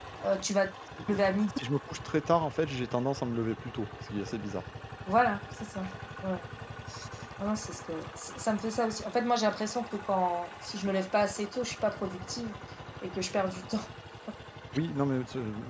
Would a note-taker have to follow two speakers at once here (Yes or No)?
No